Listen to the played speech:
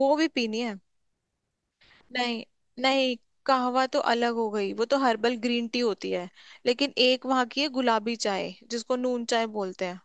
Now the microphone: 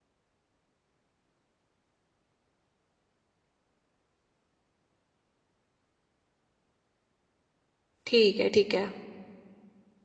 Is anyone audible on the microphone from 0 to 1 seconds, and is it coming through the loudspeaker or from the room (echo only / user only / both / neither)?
neither